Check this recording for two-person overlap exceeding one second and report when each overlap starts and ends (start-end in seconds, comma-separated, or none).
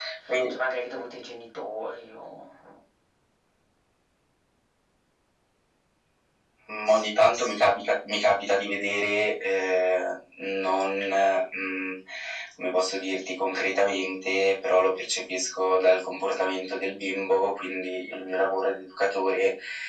none